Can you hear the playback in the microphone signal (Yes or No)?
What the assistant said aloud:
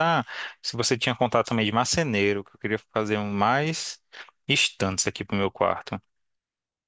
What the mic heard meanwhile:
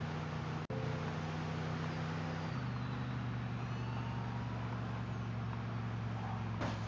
No